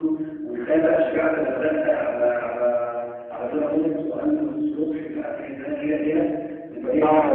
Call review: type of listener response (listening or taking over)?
taking over